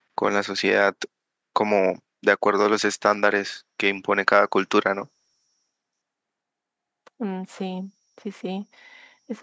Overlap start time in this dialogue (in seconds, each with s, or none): none